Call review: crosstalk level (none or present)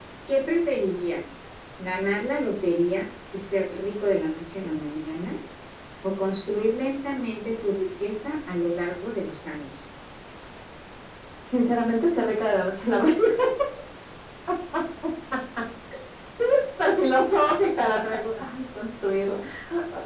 none